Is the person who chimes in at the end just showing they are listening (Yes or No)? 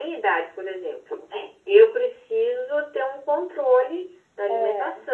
Yes